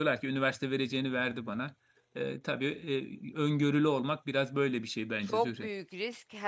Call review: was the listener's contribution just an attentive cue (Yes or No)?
No